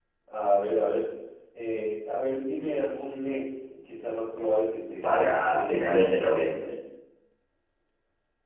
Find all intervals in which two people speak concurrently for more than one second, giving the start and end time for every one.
5.0-6.4

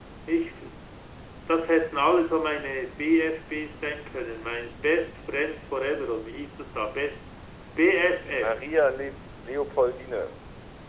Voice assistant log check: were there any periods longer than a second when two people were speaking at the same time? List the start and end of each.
none

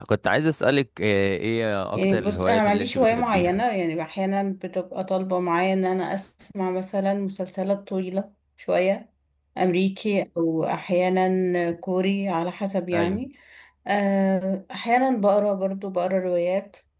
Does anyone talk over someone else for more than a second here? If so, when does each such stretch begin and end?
1.9-3.6

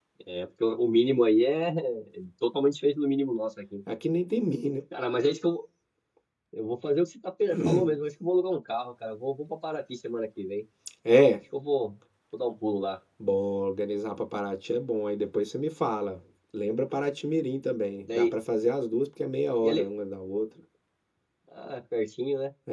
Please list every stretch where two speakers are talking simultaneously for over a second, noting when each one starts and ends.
none

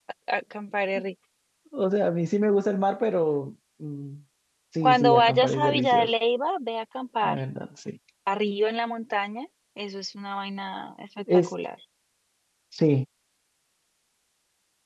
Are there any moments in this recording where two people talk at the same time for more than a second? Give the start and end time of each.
4.8-6.1

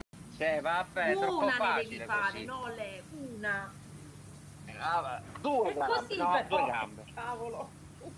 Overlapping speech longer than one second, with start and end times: 1.1-2.5, 5.7-6.9

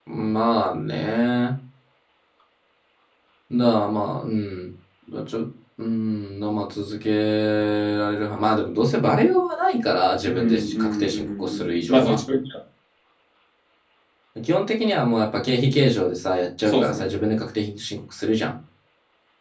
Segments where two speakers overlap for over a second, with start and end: 10.2-12.2

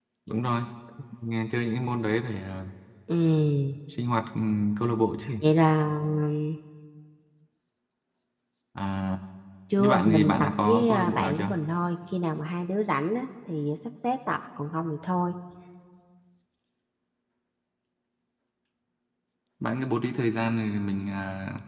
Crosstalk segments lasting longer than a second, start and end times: 9.8-11.6

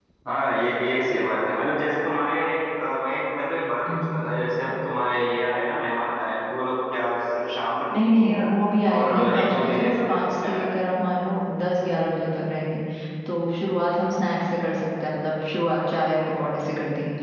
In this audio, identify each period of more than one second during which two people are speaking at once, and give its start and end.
8.9-10.7

